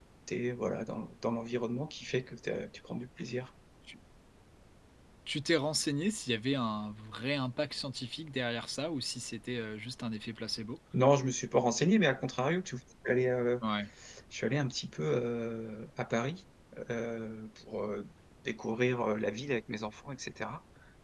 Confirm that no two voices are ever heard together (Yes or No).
Yes